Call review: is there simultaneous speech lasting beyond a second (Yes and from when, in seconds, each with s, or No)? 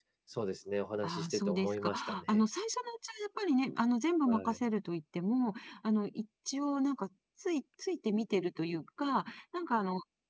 Yes, from 1.0 s